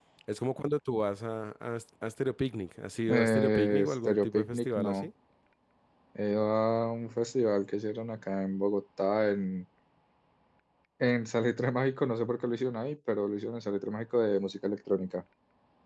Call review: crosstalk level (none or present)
present